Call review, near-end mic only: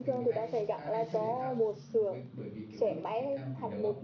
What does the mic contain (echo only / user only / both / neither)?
both